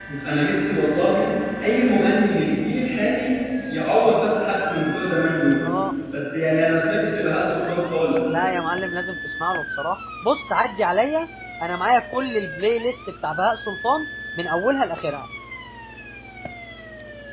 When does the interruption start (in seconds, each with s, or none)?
none